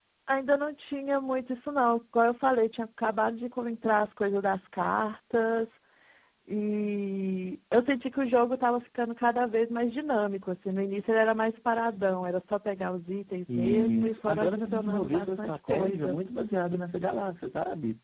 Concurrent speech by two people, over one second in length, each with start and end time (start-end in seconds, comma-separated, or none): 13.5-16.2